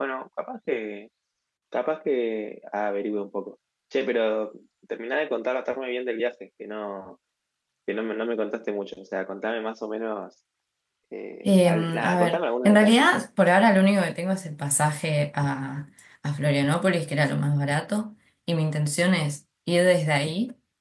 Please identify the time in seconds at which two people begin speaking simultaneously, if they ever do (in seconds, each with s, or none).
11.5 s